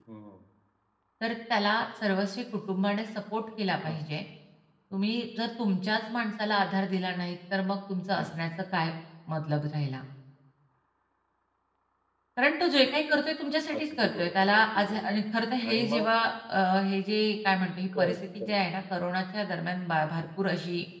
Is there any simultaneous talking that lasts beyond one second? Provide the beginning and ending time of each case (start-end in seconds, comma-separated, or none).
13.8-15.2